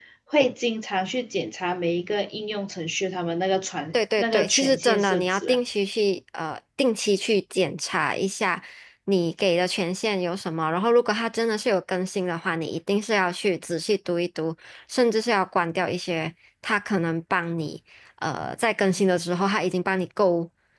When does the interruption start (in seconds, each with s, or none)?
3.9 s